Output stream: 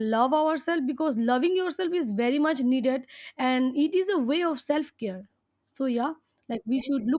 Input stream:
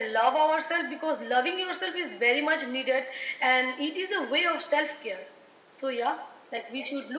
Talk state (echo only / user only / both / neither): echo only